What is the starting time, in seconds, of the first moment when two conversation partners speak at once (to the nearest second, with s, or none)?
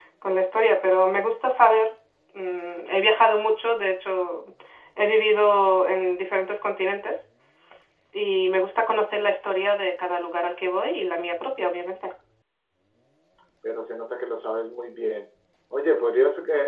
none